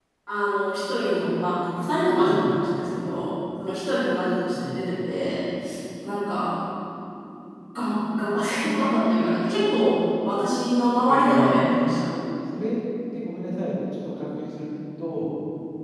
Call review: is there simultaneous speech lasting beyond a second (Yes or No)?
No